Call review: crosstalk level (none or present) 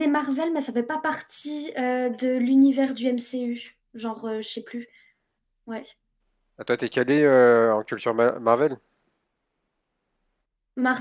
none